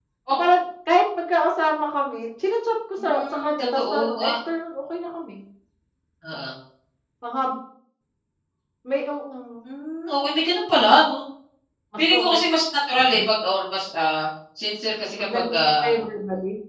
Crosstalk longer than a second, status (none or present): present